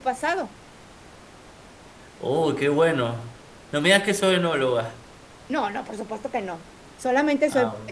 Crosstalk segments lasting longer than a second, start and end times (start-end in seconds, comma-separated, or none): none